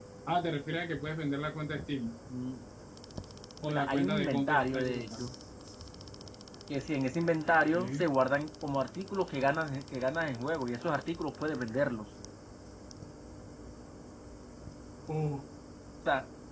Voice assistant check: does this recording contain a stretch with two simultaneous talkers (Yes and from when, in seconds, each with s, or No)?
Yes, from 3.6 s